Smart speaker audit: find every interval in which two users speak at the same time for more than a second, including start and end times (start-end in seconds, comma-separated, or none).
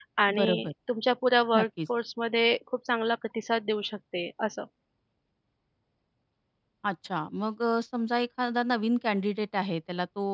none